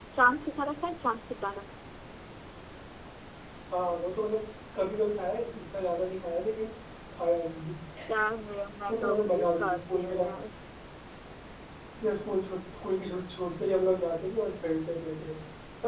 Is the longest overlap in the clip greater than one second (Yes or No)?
Yes